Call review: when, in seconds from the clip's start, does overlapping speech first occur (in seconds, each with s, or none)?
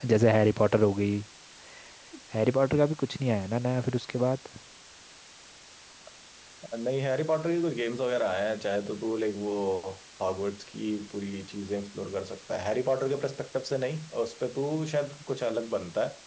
none